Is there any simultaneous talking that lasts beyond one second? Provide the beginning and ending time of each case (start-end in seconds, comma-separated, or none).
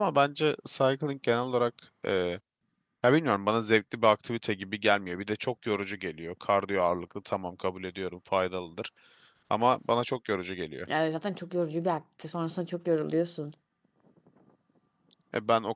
none